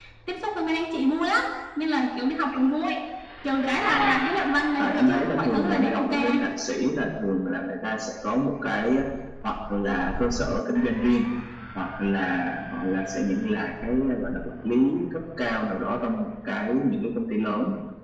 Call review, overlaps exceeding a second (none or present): present